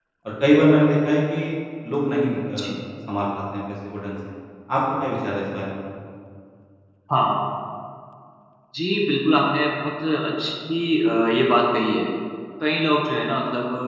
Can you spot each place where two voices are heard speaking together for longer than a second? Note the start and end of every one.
none

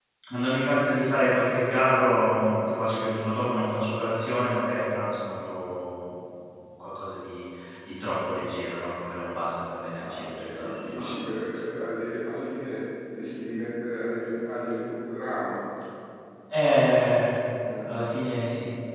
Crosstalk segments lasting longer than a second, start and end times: 9.9-11.2

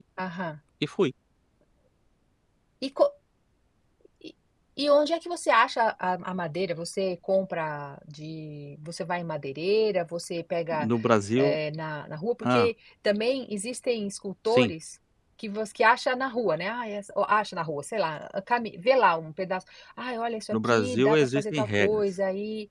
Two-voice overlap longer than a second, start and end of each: 20.5-22.0

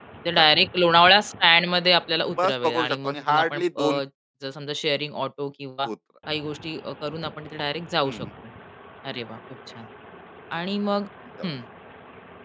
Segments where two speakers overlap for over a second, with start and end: 2.4-4.0

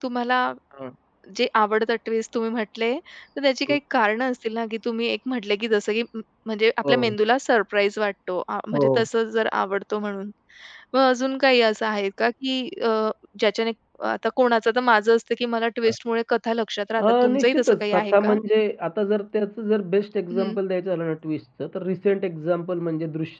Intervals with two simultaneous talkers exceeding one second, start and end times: 17.0-18.4

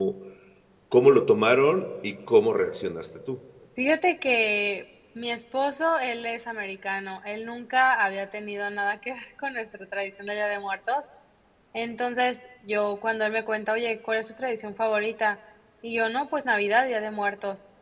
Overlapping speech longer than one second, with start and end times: none

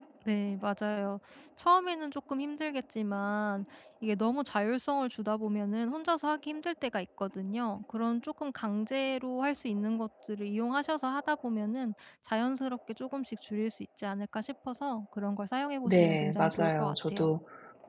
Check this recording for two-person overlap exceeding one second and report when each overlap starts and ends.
15.8-17.3

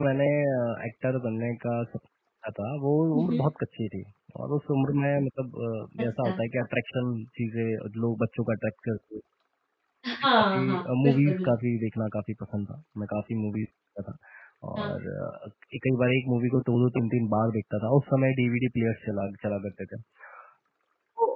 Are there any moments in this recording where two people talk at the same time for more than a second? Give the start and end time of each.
10.1-11.5

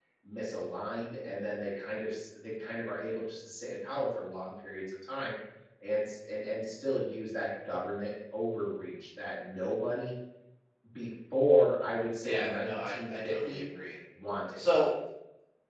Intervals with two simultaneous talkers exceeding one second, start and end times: 12.2-13.6

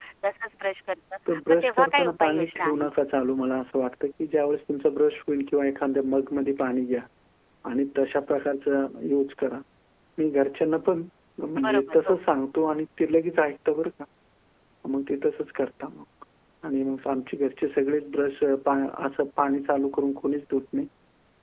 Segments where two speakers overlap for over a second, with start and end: 1.3-2.9

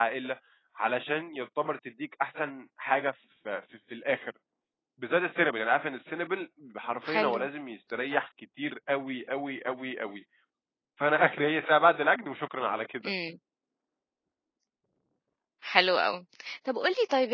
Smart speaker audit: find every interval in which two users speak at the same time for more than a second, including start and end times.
none

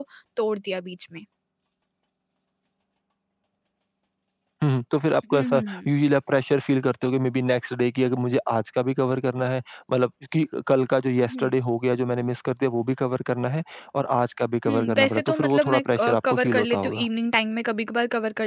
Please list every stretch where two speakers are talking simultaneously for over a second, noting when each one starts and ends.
14.7-17.1

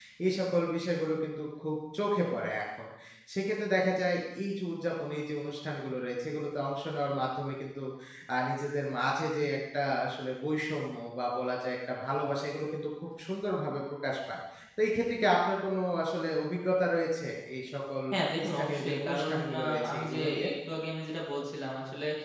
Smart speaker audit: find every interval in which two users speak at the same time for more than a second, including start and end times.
18.5-20.5

